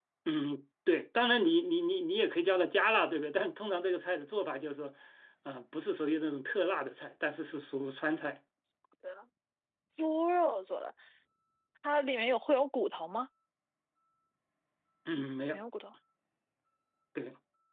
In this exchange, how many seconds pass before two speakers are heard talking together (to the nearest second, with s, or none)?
none